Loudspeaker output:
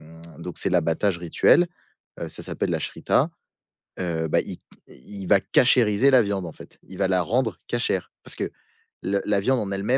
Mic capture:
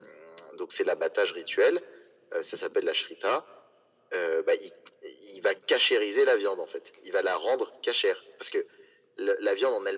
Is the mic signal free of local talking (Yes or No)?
Yes